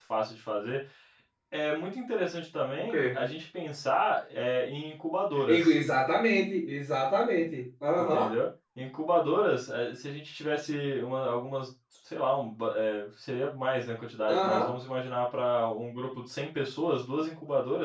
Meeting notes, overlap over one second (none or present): none